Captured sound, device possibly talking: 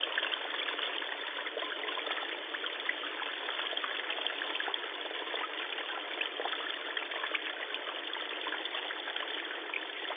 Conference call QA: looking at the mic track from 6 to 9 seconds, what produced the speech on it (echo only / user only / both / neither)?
neither